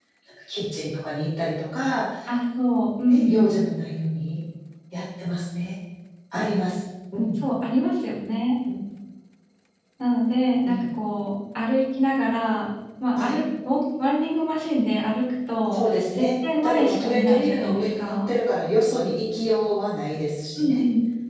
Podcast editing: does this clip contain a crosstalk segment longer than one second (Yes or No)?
Yes